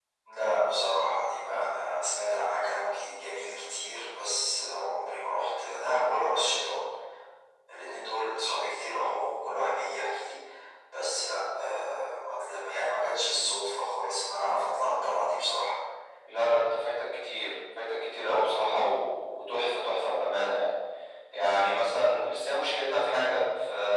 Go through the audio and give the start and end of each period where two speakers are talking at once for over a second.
none

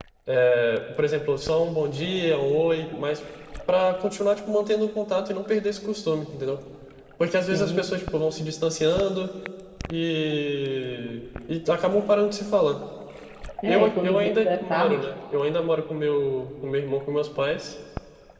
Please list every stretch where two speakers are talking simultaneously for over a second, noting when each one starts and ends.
13.7-15.1

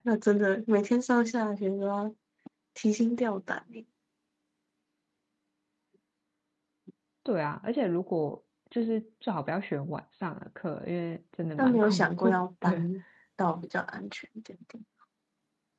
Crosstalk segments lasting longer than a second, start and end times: 11.6-12.9

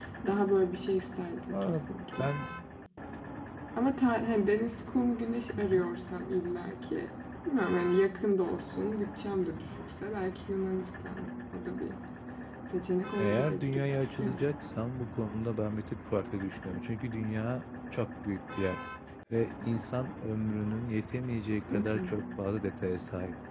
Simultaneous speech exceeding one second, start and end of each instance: 13.2-14.5

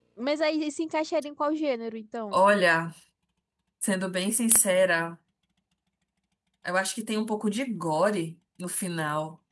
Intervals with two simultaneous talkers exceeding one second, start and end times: none

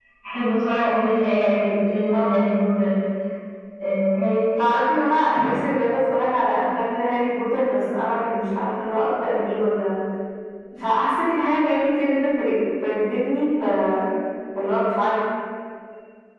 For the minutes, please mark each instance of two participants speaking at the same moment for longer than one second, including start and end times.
none

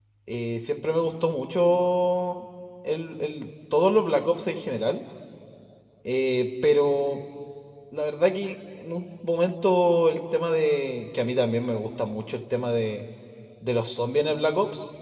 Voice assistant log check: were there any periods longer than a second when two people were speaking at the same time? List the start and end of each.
none

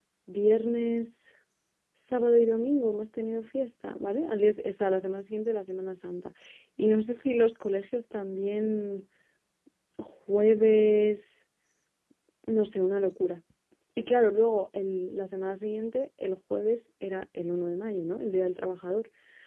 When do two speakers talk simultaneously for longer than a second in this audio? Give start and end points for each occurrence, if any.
none

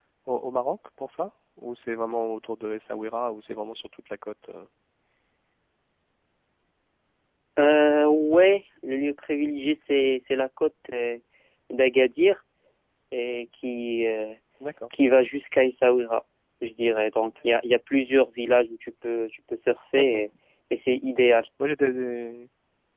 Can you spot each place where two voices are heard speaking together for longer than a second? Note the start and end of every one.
none

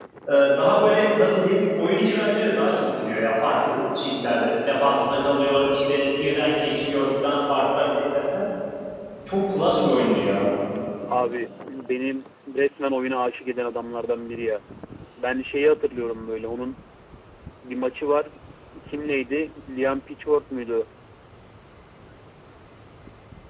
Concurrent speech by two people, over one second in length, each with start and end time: none

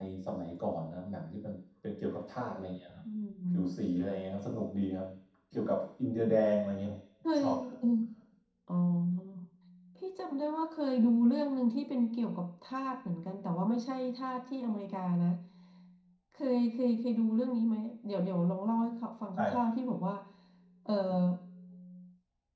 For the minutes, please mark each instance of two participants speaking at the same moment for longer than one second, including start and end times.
none

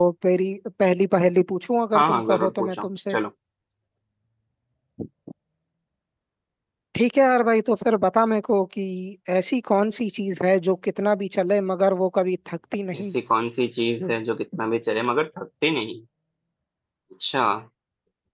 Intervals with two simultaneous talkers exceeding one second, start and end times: 1.9-3.2

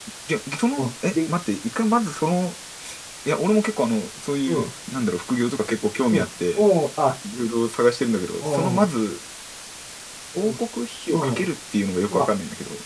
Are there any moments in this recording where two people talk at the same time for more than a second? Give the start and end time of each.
none

